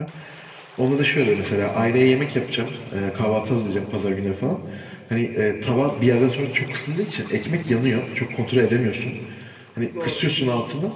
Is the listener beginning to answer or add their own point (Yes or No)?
No